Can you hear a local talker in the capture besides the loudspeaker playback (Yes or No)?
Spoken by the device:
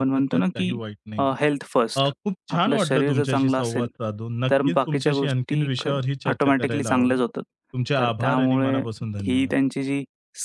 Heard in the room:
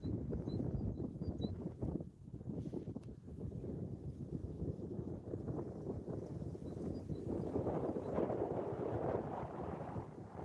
No